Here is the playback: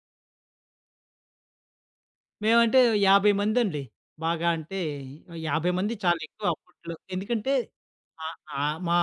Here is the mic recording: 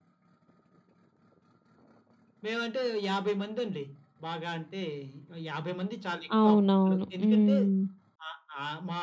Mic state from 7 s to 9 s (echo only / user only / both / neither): both